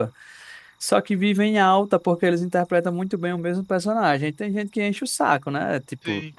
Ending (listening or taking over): listening